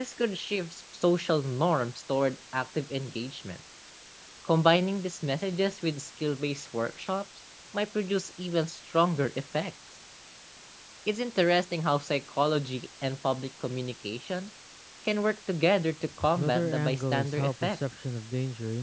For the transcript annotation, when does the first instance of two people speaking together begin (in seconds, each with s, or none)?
16.4 s